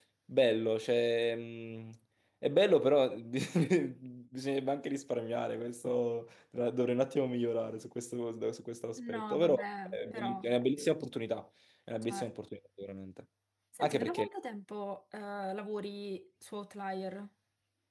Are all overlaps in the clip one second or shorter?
No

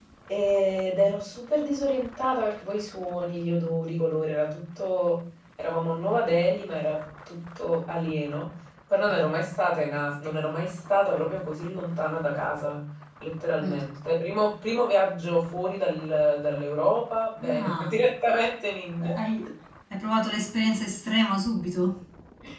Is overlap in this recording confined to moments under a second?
Yes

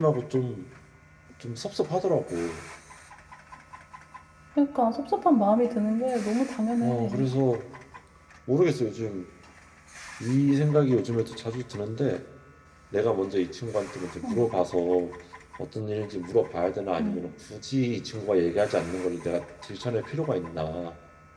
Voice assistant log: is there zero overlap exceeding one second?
Yes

